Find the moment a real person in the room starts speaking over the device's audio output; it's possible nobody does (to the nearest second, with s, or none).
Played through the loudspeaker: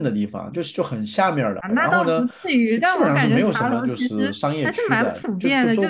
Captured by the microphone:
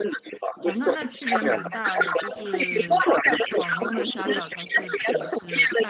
1 s